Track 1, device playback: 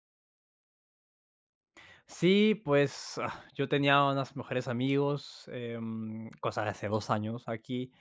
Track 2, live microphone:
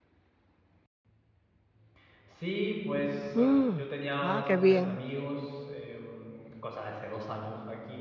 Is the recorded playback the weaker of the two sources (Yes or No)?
Yes